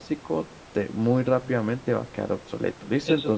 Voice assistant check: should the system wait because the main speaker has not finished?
No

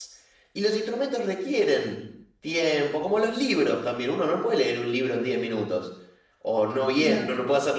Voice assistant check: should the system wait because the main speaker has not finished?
Yes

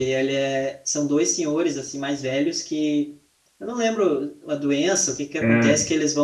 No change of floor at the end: Yes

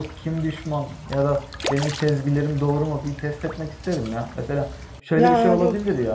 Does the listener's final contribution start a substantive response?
No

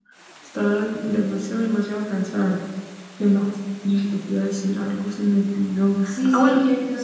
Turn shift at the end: Yes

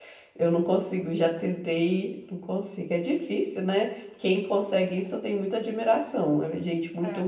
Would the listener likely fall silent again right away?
No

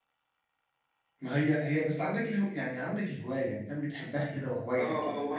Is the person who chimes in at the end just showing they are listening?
No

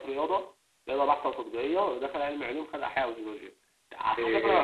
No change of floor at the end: No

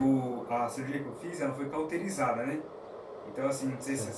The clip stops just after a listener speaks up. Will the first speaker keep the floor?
Yes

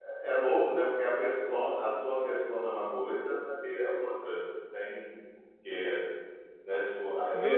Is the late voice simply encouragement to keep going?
No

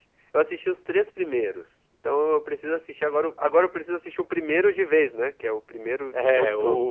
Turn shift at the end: Yes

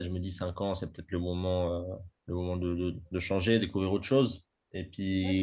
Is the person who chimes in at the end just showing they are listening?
Yes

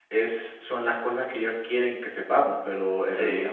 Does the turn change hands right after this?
No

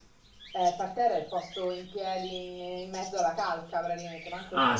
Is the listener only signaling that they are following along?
No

